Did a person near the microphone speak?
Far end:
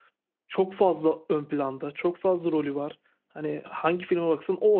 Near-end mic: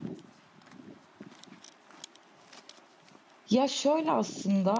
Yes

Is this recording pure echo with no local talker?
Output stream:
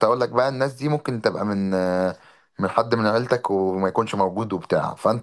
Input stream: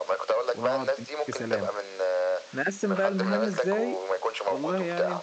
No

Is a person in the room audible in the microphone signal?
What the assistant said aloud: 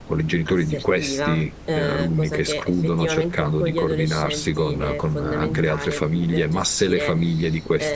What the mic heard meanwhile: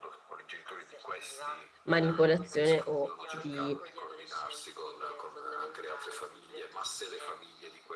Yes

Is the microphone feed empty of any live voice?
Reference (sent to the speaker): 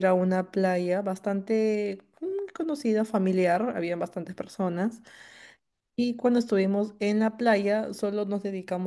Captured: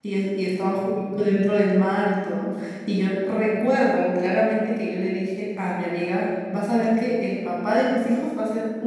No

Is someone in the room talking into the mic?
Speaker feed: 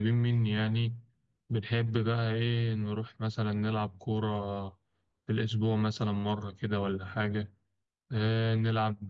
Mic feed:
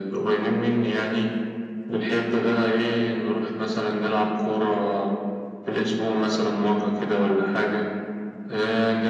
No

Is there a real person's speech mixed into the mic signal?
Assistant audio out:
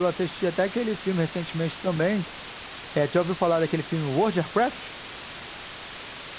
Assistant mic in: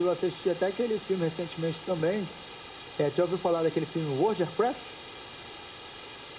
No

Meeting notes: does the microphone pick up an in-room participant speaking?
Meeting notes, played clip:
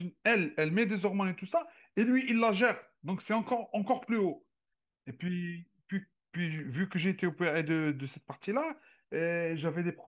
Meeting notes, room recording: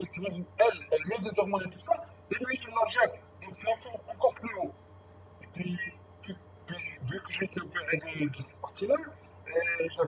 No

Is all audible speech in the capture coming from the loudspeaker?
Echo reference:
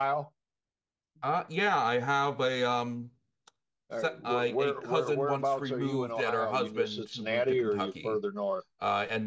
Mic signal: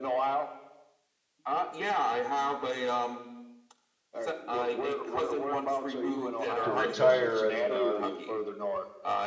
No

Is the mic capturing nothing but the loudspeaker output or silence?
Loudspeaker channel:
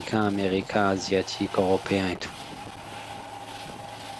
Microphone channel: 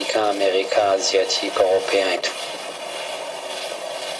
Yes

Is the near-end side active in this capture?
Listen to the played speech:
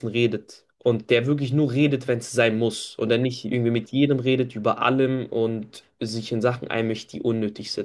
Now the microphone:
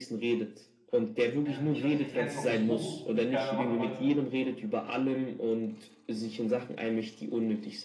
Yes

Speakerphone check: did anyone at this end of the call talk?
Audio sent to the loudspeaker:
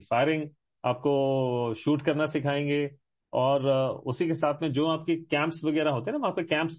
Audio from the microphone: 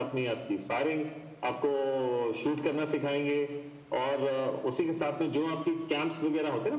No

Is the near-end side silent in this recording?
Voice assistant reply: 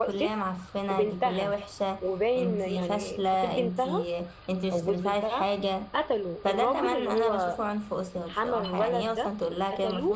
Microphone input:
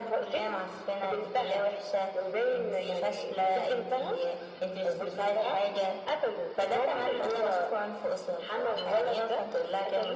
Yes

